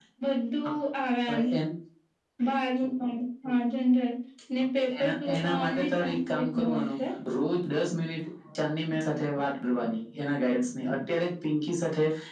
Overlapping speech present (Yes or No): Yes